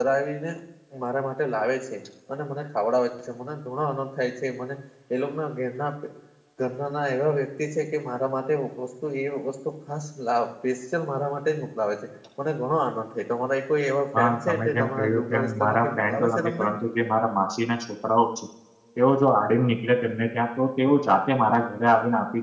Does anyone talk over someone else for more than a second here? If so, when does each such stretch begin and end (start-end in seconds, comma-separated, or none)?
14.2-16.6